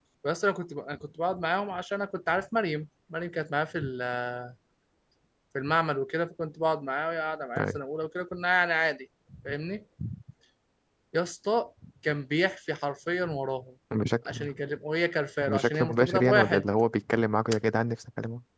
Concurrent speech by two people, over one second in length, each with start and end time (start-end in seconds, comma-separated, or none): 15.4-16.6